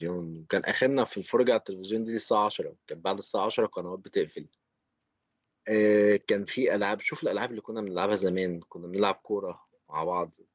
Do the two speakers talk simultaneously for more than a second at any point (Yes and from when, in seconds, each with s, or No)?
No